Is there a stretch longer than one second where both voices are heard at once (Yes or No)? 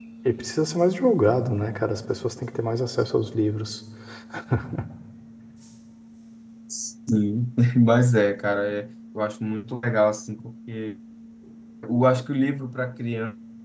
No